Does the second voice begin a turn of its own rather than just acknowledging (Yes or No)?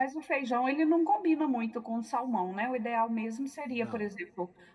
No